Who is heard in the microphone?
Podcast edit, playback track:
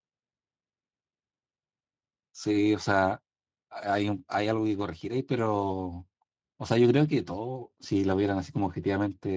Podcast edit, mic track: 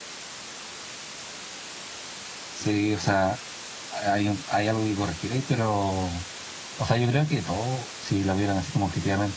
echo only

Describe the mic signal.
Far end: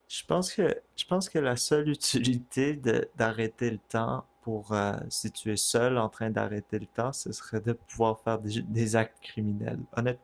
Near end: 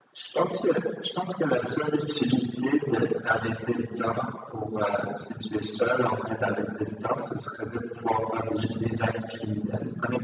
echo only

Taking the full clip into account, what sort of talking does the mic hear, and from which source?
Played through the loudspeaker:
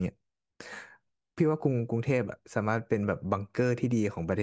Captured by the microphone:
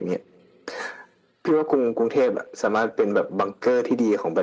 echo only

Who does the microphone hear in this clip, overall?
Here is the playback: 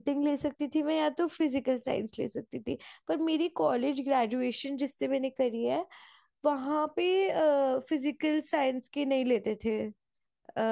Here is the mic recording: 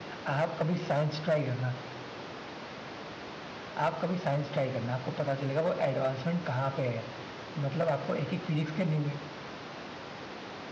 user only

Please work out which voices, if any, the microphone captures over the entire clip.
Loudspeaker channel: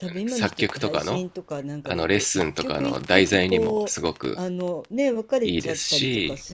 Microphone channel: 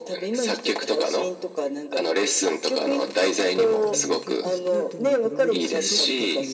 both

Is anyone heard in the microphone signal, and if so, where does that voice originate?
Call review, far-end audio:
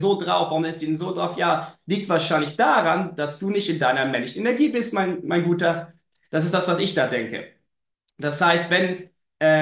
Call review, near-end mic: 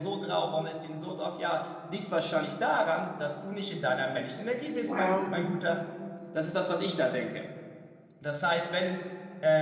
both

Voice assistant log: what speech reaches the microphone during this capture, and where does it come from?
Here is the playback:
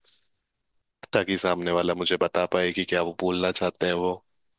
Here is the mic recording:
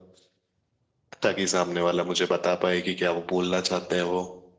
echo only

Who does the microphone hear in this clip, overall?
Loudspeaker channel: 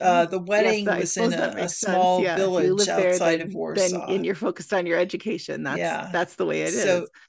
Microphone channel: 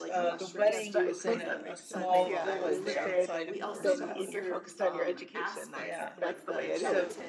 both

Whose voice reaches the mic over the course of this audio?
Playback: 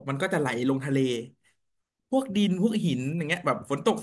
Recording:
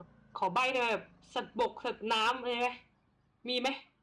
user only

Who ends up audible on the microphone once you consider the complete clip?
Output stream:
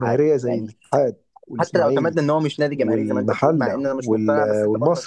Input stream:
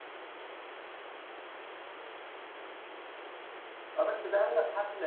user only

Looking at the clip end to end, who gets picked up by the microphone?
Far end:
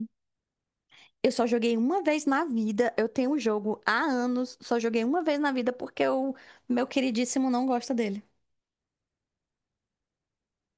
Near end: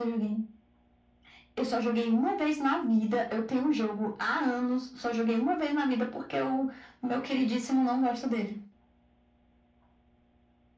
echo only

